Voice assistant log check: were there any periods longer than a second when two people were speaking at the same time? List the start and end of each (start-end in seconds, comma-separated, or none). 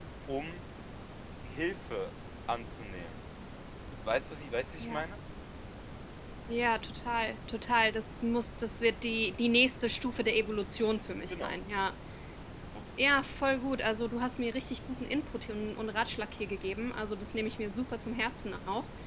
none